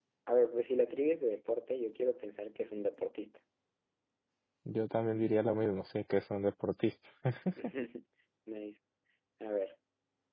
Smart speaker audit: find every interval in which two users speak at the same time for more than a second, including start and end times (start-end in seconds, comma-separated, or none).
none